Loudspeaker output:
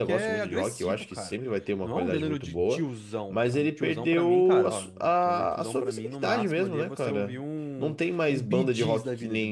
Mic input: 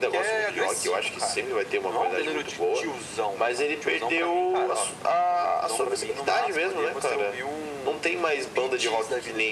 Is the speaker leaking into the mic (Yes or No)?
Yes